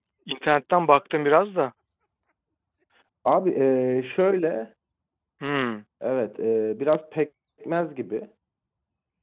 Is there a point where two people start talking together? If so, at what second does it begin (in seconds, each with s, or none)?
none